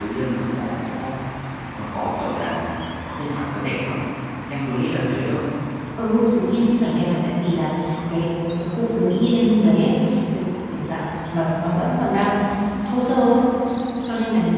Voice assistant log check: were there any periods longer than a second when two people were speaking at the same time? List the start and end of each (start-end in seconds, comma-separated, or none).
none